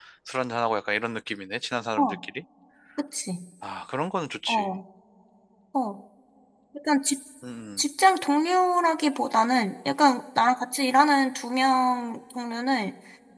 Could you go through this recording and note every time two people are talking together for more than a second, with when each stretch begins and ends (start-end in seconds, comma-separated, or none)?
none